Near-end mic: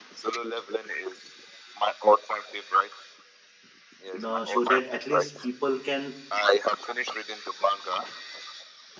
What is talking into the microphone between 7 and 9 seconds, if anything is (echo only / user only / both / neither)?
echo only